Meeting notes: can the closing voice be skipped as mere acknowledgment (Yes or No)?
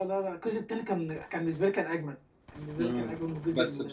No